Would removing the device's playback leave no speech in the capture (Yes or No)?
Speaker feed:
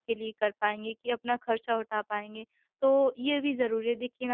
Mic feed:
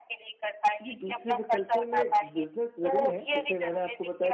No